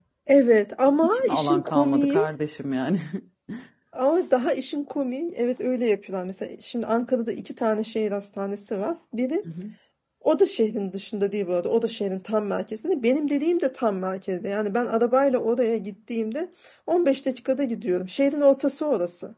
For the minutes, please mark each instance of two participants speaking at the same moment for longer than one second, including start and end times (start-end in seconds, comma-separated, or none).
1.0-2.3